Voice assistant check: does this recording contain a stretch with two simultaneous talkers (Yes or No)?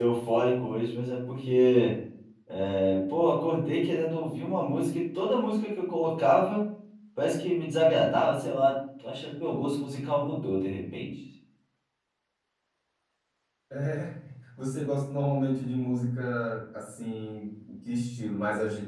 No